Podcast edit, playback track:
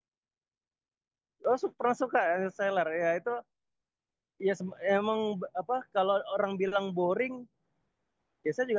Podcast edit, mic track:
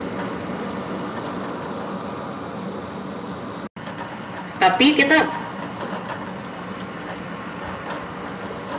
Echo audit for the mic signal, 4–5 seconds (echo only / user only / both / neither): user only